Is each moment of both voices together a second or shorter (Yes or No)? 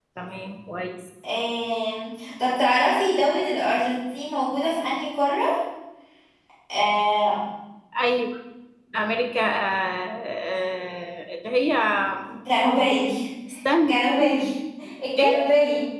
Yes